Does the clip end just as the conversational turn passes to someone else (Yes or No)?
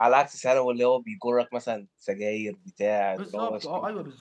Yes